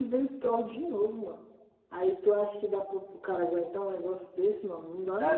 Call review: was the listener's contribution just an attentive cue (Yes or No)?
No